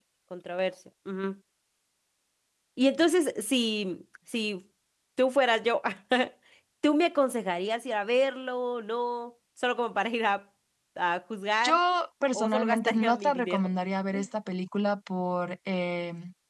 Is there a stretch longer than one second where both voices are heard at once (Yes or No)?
Yes